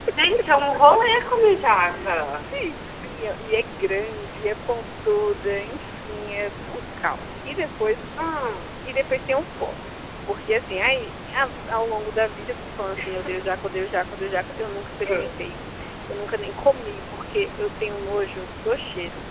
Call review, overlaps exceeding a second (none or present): none